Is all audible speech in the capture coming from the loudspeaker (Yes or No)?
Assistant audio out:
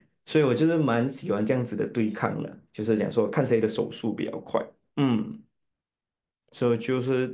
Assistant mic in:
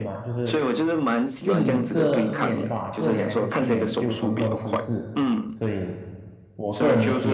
No